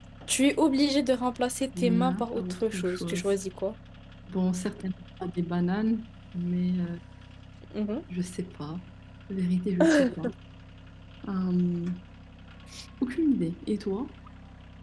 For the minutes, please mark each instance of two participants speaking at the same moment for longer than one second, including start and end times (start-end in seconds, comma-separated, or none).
1.8-3.3